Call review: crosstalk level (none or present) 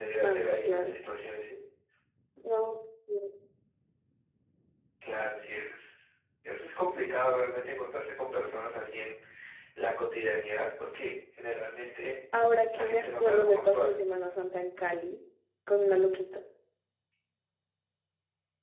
present